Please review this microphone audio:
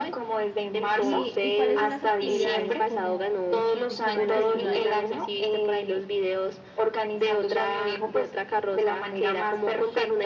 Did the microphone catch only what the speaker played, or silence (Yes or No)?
No